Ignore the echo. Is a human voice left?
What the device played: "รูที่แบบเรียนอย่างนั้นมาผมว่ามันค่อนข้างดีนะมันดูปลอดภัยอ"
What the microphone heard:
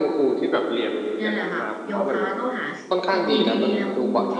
Yes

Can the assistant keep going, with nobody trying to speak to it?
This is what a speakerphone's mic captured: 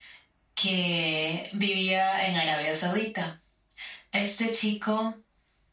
Yes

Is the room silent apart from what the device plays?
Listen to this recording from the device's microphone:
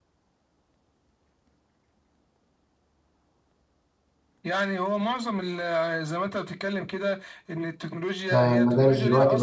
No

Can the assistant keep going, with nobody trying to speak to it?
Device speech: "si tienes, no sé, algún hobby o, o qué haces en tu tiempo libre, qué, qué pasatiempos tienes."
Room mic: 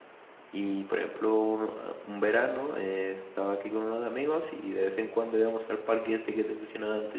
No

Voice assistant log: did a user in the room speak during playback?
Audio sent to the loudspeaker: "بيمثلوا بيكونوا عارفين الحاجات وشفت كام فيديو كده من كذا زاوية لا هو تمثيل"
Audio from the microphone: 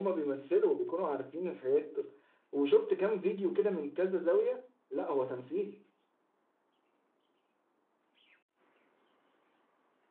No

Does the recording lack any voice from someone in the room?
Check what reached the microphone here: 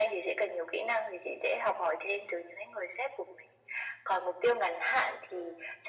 Yes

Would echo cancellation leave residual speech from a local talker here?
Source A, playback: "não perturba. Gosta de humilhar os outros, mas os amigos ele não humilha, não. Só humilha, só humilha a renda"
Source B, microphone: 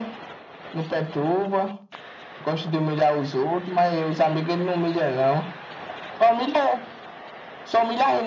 No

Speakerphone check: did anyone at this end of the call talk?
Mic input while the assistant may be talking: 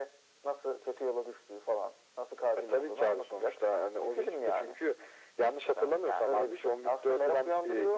No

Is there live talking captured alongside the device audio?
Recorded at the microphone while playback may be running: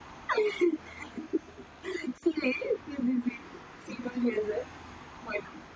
No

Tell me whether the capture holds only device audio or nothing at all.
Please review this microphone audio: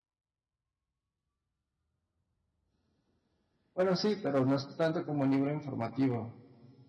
No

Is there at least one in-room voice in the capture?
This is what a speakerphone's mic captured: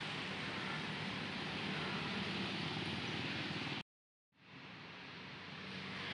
No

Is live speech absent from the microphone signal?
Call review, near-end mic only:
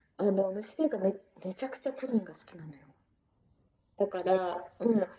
Yes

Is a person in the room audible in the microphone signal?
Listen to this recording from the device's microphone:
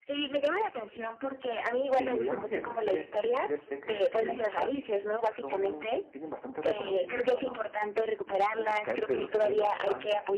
Yes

